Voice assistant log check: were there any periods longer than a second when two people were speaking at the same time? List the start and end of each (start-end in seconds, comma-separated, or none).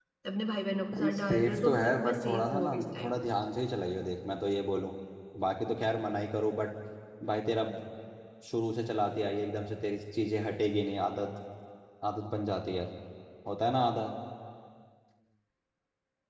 0.9-2.8